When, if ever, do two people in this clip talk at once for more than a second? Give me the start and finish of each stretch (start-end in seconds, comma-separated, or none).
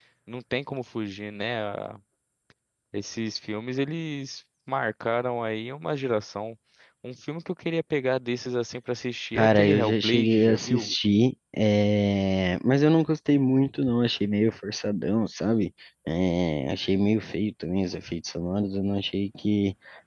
9.3-10.9